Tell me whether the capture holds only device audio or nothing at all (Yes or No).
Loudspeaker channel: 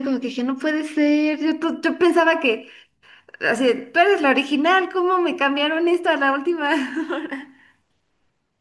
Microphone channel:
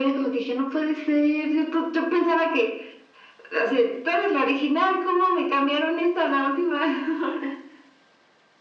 Yes